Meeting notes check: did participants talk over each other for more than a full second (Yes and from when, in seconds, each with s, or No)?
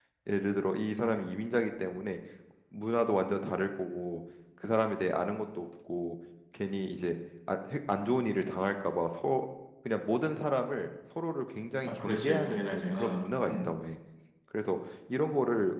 Yes, from 11.8 s